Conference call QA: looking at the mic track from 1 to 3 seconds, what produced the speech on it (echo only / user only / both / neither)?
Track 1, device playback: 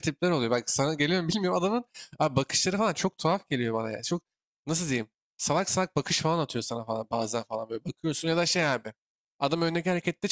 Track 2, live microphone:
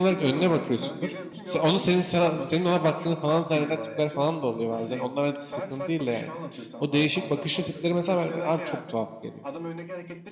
both